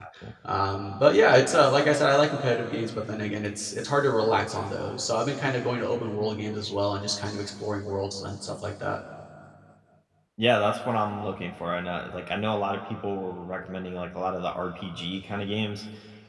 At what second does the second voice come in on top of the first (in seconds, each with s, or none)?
none